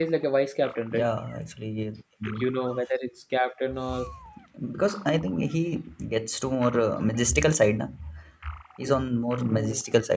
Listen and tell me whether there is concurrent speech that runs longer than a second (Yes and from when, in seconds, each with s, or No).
No